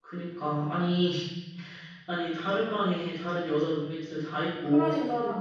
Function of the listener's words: listening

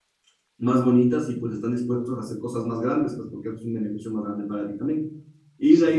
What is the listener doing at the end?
listening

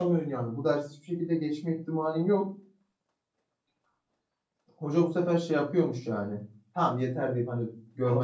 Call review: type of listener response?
taking over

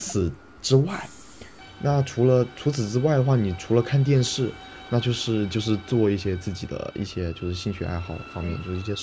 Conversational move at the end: listening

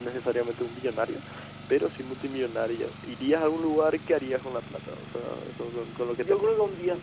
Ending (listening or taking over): taking over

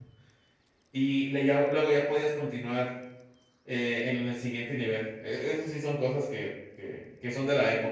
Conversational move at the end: taking over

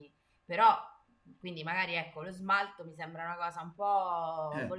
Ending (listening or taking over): listening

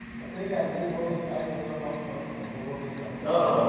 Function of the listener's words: taking over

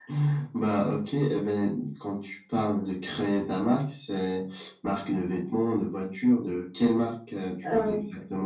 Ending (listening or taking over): taking over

